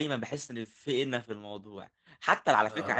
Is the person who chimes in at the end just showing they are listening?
Yes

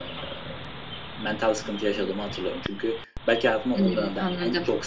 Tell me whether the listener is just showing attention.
Yes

